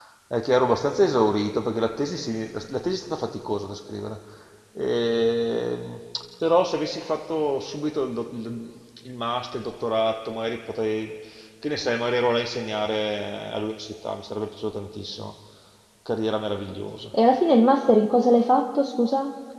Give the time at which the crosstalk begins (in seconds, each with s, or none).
none